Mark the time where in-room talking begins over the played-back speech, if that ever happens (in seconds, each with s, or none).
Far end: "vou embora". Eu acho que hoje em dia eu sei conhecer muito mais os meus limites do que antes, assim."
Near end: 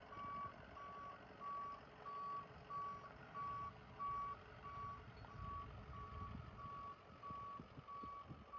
none